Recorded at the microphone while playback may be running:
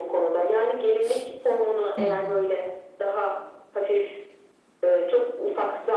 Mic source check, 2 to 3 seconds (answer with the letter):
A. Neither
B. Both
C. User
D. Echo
B